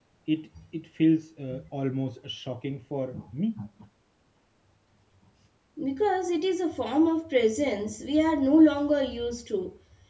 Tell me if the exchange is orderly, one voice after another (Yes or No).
Yes